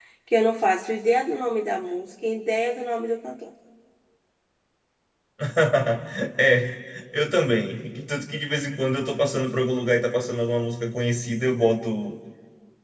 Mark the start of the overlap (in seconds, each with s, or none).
none